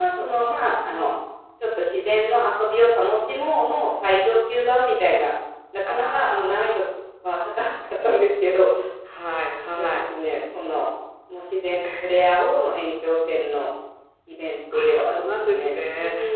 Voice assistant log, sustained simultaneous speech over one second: present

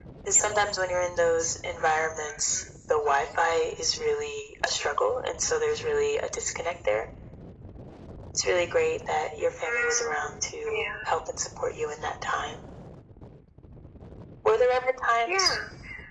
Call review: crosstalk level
present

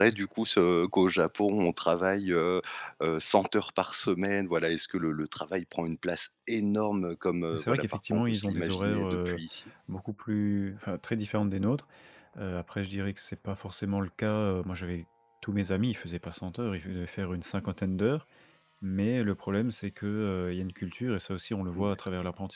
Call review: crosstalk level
present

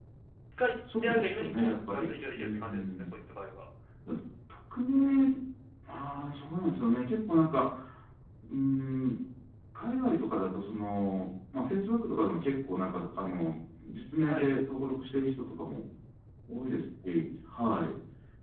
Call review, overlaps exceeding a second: present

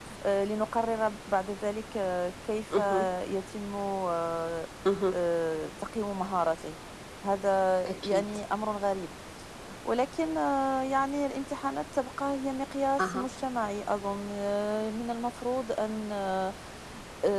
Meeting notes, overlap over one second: none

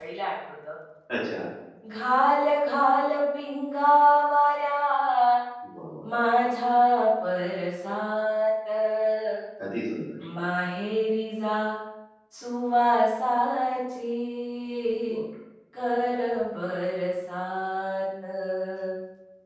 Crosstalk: none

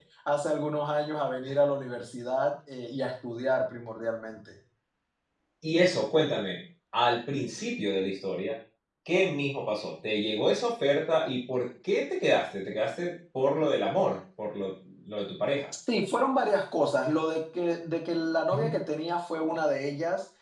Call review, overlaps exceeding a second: none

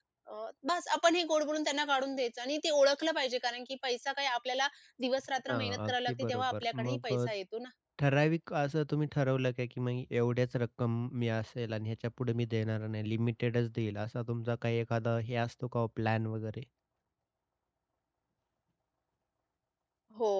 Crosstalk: present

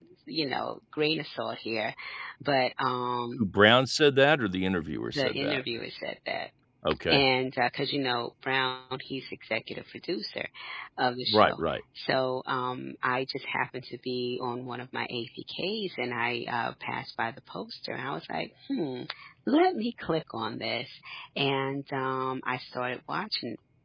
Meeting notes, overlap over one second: none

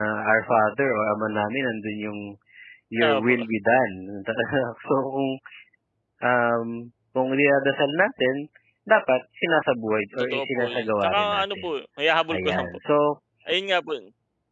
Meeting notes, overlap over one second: present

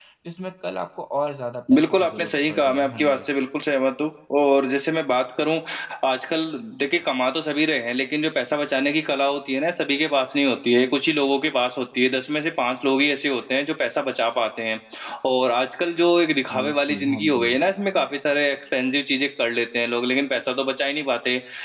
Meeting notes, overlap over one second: present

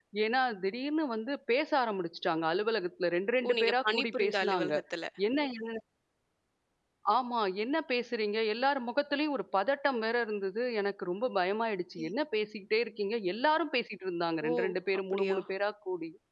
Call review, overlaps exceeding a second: present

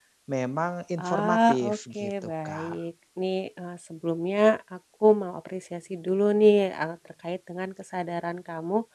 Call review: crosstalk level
present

